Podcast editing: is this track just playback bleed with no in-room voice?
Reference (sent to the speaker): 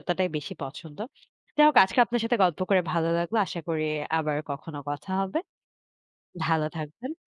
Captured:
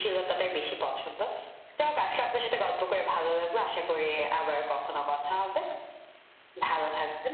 Yes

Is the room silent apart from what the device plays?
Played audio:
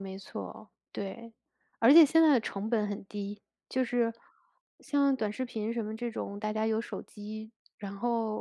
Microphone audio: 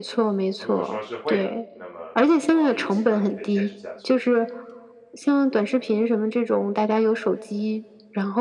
No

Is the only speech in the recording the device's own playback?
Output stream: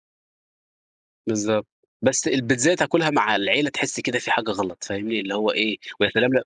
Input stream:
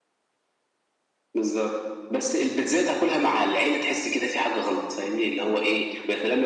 Yes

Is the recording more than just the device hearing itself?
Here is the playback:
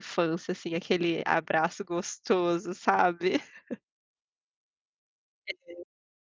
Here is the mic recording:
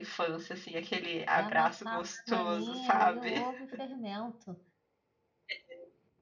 Yes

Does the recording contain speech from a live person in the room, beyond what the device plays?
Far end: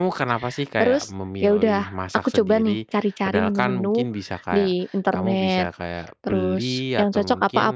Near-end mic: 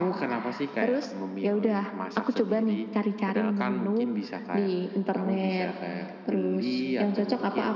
No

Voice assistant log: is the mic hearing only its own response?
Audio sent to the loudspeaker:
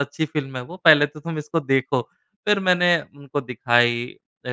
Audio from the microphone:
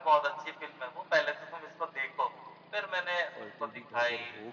No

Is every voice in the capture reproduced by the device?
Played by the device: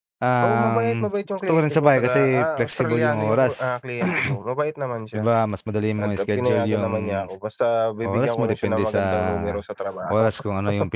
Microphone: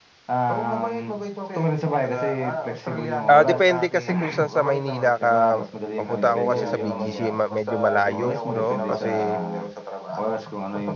No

